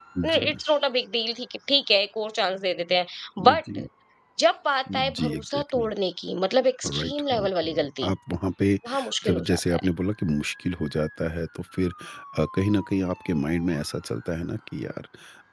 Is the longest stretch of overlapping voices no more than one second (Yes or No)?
No